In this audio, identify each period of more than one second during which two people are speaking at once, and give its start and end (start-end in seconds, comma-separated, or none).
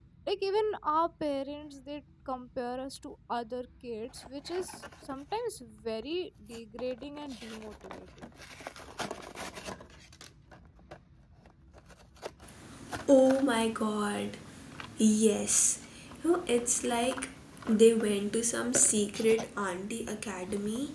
none